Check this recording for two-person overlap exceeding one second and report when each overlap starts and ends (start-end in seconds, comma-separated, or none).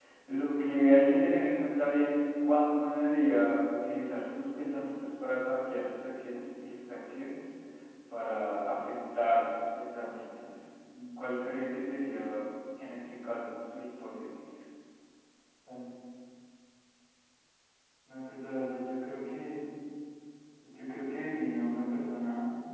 none